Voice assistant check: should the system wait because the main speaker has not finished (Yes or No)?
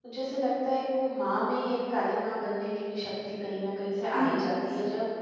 Yes